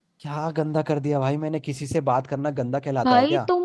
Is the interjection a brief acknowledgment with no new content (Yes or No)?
No